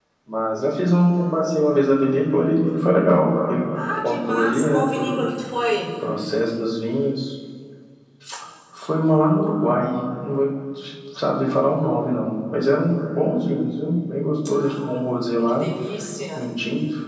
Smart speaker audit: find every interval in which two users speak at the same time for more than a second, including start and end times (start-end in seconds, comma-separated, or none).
4.0-5.3